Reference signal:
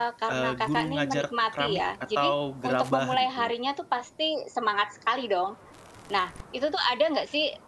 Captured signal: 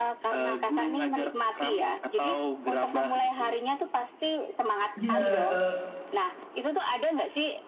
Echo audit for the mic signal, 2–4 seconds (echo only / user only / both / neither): echo only